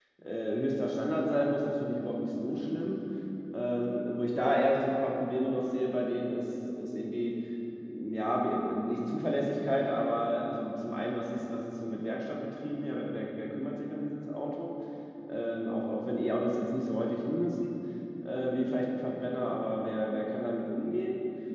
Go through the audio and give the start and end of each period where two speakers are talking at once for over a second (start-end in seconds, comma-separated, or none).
none